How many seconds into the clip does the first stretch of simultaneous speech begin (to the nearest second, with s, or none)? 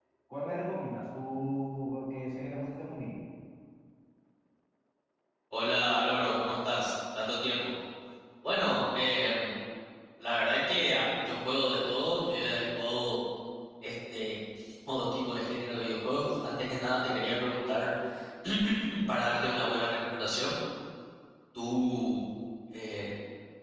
none